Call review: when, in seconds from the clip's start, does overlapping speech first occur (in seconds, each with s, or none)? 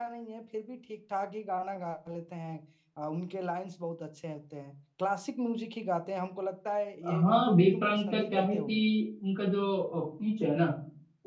7.0 s